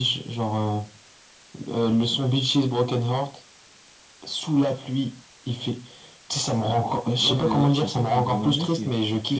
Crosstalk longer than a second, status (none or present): present